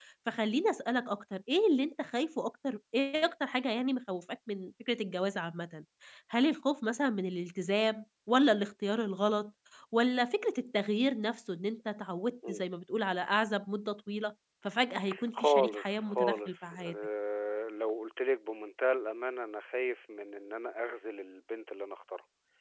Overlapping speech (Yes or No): Yes